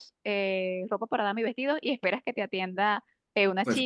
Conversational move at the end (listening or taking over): listening